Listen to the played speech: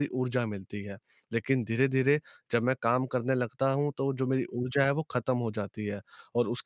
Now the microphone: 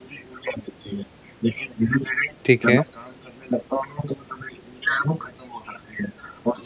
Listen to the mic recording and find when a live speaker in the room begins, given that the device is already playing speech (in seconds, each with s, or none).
2.5 s